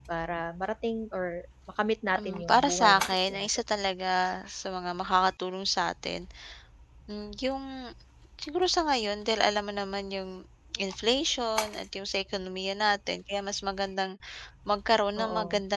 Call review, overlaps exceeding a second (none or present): present